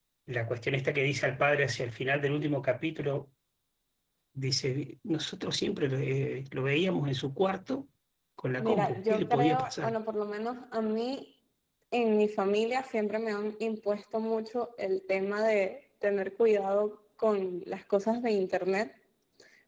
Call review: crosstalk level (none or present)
present